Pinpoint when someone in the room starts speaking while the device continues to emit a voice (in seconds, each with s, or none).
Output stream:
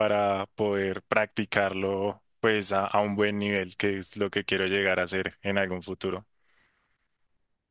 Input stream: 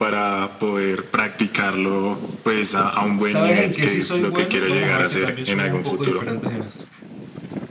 3.2 s